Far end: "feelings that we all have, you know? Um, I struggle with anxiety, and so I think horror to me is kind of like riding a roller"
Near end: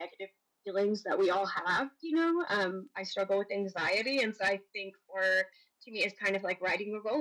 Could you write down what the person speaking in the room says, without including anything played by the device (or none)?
none